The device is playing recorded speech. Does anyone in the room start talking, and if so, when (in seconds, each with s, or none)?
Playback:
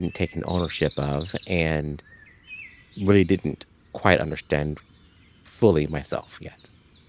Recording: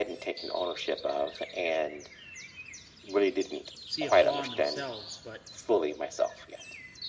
3.8 s